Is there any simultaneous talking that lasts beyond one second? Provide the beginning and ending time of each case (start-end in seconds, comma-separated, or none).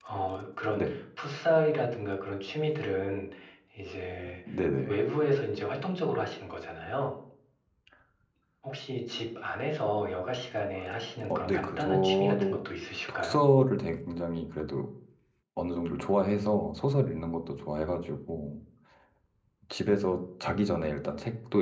11.3-12.6